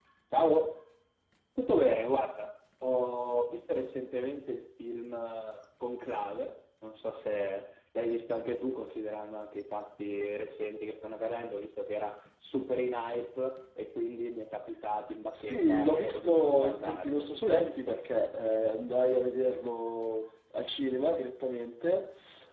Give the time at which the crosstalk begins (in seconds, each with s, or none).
15.3 s